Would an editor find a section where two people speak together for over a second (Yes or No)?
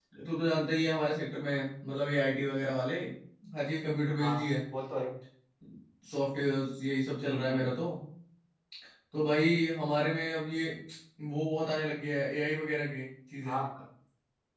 No